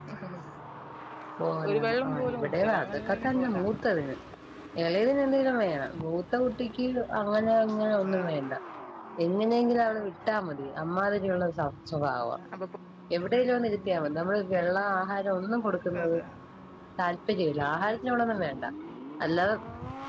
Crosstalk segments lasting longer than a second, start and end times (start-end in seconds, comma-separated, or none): 1.7-3.8